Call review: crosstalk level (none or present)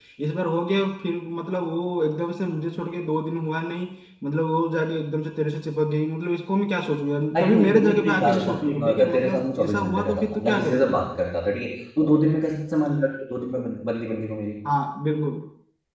present